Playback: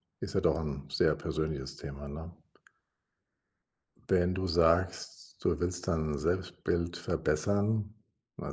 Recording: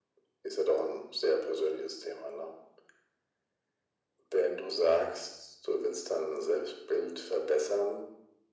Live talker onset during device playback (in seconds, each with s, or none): none